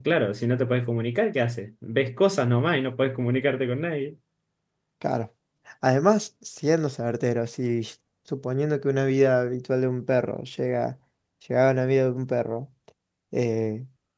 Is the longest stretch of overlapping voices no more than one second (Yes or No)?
Yes